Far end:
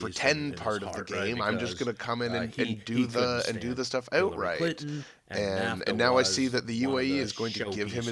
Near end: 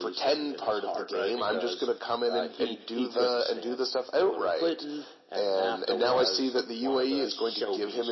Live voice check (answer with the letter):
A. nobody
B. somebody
A